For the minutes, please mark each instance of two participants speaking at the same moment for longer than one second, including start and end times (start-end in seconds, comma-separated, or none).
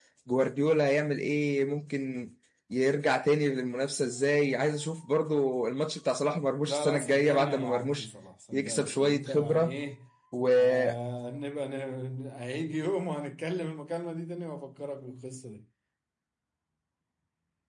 6.7-8.1, 8.5-9.8